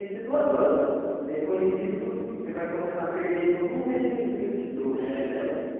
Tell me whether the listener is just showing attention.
No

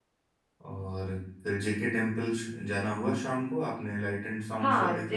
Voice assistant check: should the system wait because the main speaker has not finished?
No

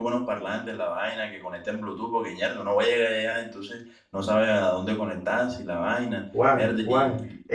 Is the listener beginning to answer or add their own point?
Yes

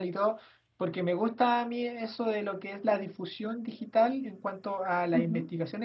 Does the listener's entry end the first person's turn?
No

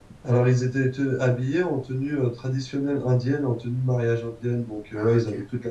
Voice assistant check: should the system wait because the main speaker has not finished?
Yes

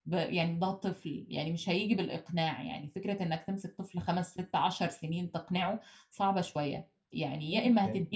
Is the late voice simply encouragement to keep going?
Yes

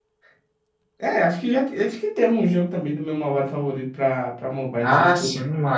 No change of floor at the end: No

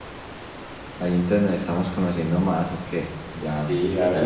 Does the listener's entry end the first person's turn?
Yes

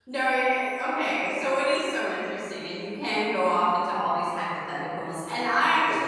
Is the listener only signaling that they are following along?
Yes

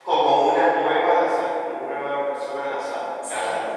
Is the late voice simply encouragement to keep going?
No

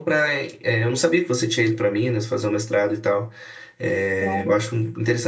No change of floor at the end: Yes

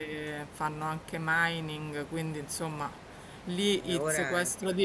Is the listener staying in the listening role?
Yes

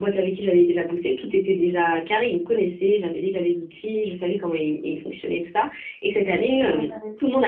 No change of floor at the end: Yes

